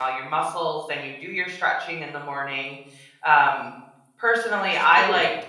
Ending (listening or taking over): listening